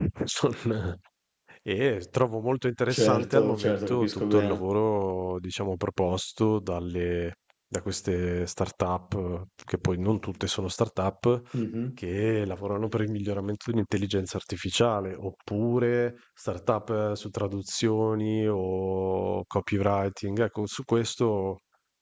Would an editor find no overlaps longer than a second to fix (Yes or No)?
No